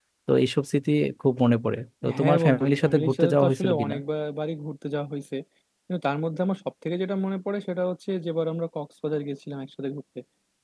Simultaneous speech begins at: 2.0 s

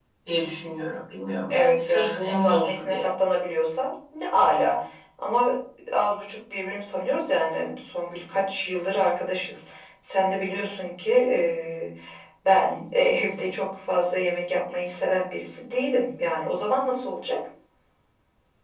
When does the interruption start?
1.5 s

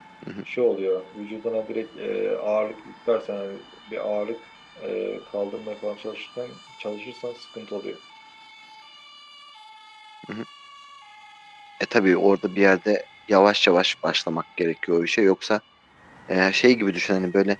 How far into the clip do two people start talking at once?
none

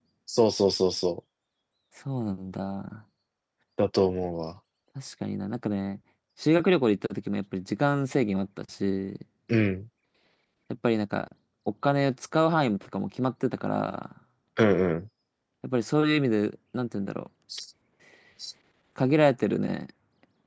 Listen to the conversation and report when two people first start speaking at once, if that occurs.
none

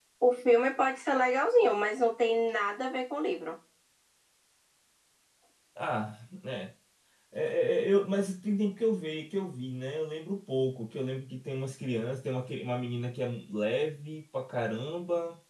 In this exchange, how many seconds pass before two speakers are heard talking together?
none

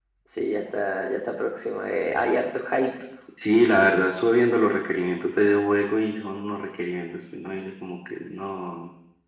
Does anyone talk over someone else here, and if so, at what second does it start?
none

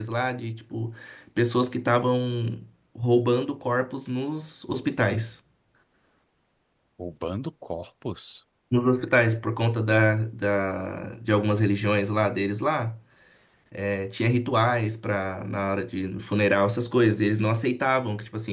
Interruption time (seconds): none

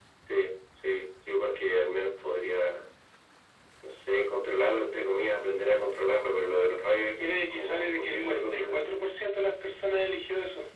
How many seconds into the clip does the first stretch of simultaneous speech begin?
7.2 s

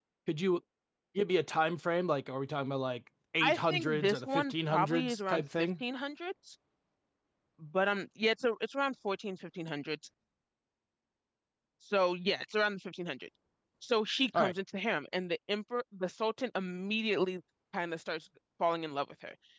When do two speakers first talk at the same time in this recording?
3.4 s

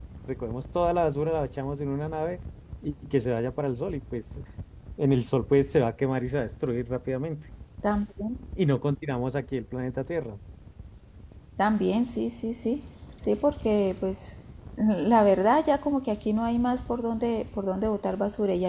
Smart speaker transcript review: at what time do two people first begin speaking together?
none

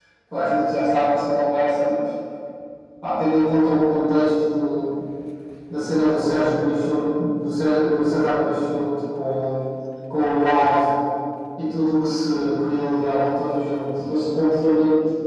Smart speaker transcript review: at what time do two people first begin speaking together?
none

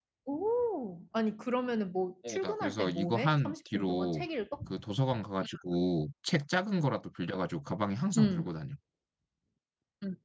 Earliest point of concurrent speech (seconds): 2.3 s

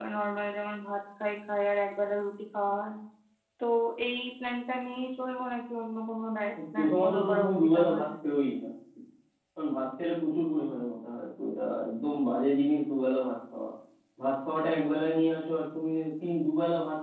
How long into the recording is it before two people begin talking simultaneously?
6.6 s

